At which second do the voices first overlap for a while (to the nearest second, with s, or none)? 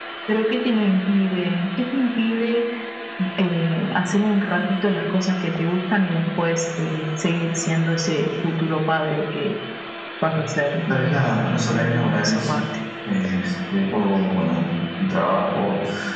11 s